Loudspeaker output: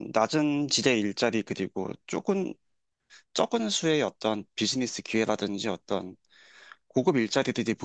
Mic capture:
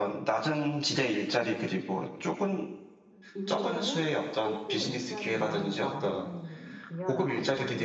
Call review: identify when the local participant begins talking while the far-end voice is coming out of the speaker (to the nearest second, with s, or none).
3 s